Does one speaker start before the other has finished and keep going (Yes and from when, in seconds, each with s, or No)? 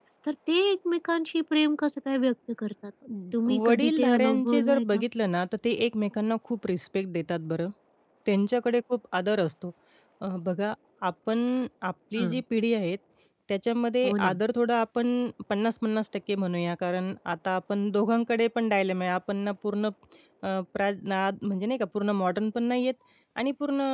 Yes, from 3.6 s